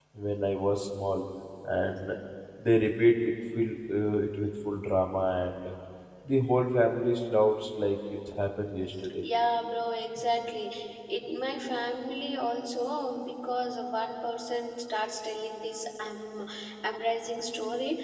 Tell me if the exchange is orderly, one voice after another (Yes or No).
Yes